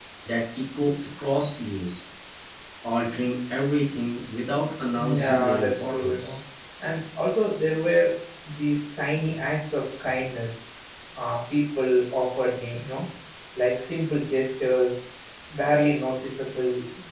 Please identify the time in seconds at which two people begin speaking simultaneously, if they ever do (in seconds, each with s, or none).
5.0 s